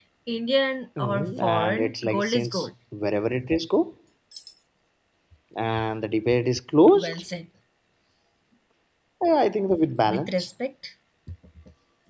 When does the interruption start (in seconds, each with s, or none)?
1.0 s